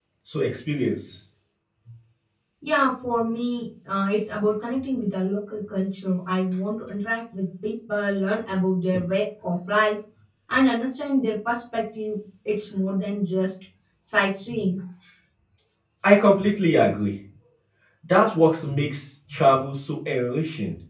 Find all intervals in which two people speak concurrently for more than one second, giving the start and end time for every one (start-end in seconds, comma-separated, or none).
none